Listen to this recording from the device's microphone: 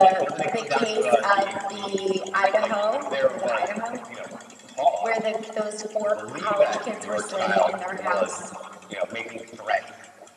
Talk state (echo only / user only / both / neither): echo only